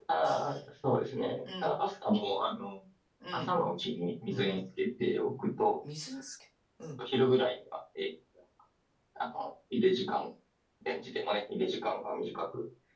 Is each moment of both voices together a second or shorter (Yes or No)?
Yes